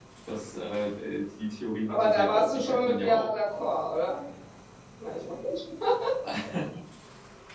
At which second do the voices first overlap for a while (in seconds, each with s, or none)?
1.9 s